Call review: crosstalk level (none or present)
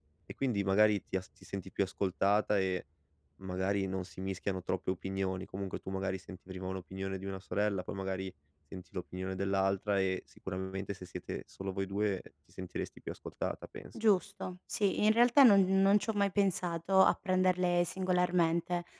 none